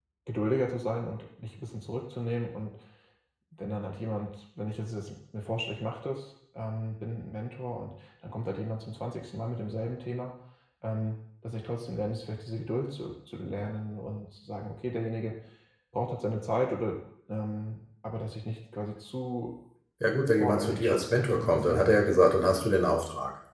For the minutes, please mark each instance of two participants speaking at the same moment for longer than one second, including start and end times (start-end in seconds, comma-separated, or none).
20.3-22.2